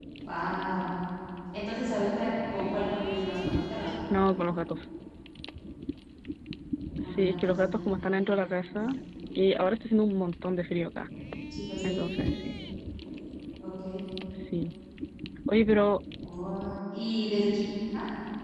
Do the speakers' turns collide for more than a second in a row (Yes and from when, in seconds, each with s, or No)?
Yes, from 7.0 s